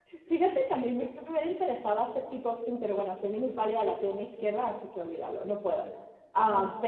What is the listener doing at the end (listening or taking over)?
listening